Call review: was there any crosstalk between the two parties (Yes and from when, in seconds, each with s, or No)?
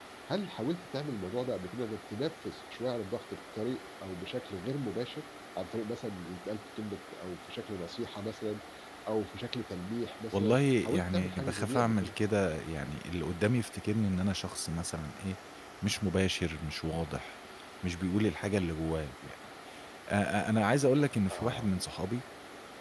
Yes, from 10.3 s